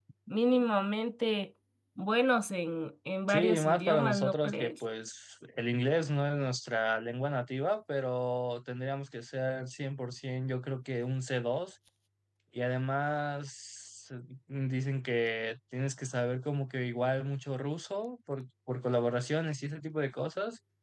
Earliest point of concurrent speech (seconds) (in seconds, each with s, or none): 3.3 s